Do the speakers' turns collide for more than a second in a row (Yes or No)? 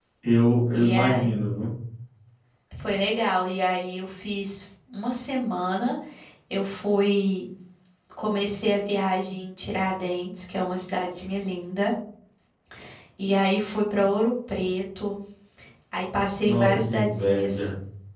Yes